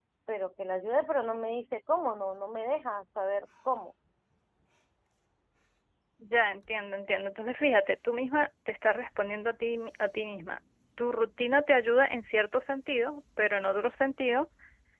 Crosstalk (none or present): none